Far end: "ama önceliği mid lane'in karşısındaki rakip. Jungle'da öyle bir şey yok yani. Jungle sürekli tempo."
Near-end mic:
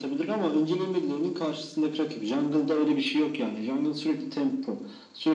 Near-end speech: none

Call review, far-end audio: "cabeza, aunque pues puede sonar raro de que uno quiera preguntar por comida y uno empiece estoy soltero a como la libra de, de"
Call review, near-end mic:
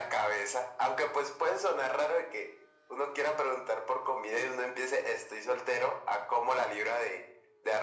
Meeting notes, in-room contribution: none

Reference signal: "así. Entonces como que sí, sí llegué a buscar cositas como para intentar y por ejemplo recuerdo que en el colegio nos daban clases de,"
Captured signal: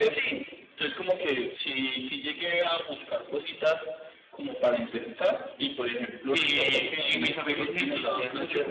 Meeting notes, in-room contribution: present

